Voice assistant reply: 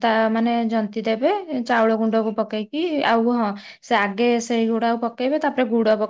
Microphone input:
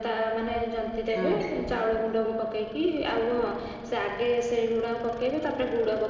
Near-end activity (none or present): present